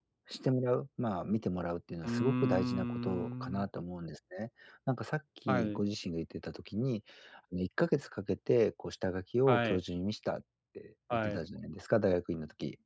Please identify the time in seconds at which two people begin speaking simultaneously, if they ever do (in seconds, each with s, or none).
2.0 s